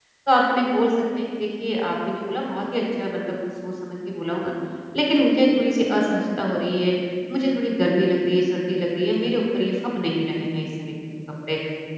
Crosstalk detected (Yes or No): No